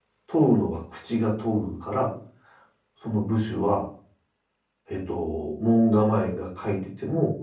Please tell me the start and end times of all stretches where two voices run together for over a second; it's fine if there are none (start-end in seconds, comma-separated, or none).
none